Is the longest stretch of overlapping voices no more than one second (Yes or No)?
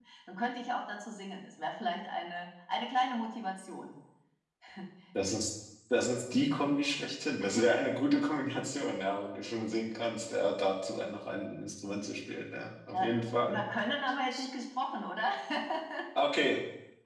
Yes